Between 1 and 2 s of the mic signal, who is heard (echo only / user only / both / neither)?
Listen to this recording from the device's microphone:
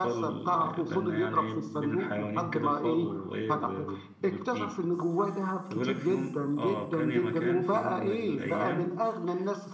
echo only